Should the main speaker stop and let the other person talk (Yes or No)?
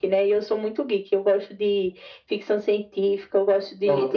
No